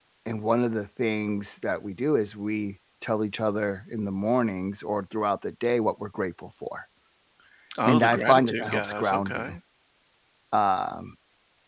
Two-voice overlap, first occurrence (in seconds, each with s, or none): 7.9 s